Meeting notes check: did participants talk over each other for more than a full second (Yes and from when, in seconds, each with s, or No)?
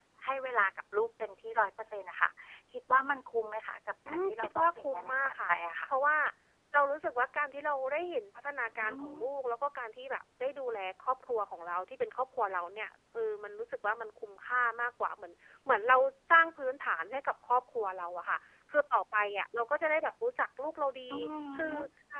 Yes, from 4.1 s